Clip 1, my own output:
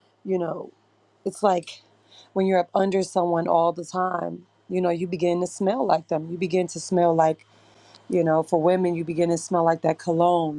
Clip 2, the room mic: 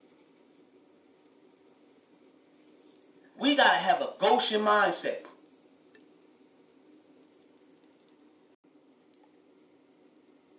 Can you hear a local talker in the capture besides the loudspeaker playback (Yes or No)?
Yes